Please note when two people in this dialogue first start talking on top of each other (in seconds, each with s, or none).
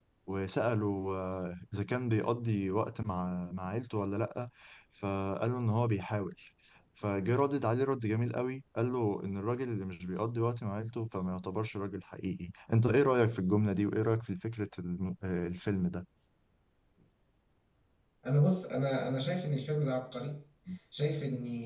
none